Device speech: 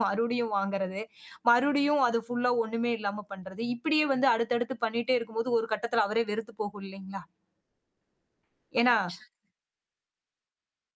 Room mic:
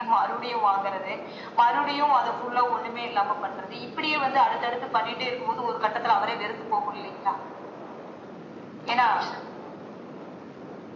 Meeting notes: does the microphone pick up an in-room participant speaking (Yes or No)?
No